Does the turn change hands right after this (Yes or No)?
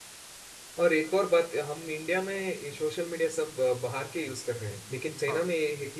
No